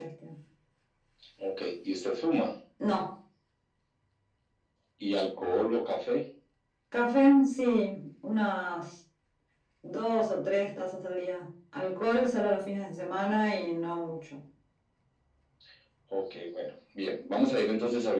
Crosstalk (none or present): none